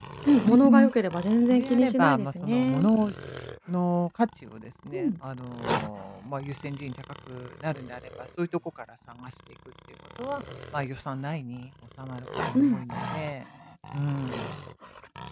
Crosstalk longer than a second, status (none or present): present